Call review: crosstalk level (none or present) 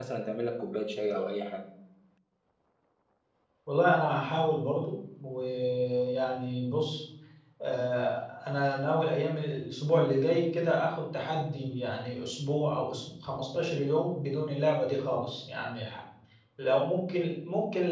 none